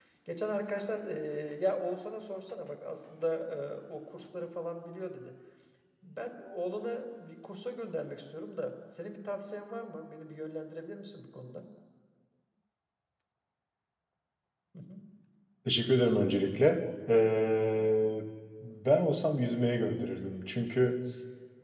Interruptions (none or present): none